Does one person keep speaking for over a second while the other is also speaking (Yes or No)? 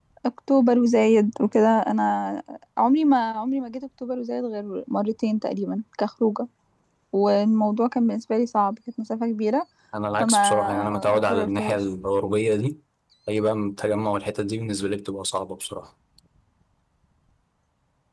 Yes